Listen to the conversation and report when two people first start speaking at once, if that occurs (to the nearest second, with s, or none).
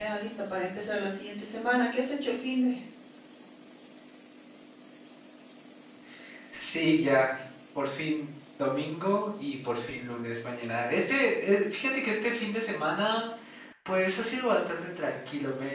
none